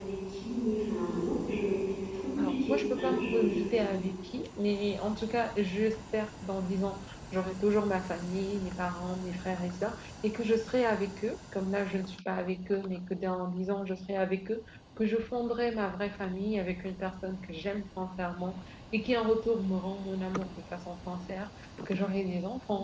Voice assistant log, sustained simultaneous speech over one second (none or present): present